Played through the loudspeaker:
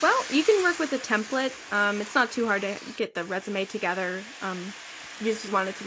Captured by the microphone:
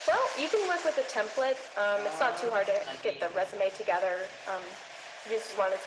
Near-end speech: present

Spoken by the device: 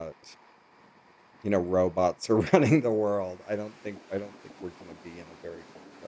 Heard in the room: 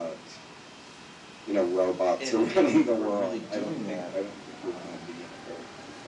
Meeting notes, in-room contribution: present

